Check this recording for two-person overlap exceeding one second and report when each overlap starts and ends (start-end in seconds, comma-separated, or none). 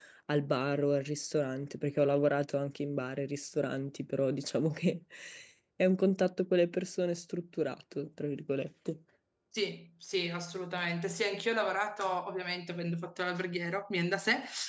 none